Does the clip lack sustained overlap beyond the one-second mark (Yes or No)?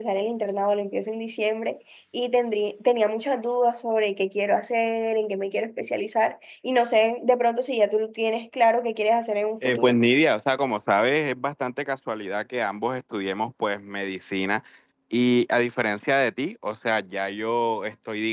Yes